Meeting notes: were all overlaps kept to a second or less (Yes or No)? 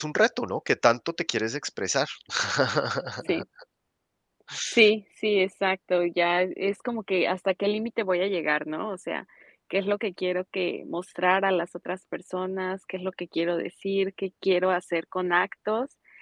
Yes